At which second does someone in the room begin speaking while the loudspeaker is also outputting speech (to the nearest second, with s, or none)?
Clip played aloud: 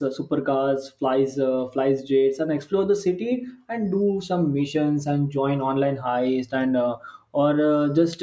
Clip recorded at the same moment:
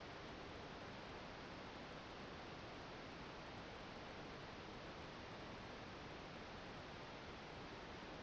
none